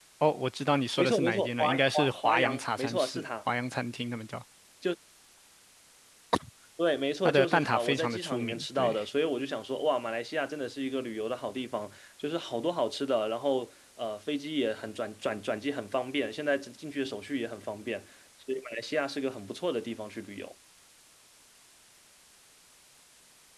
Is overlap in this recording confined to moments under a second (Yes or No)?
No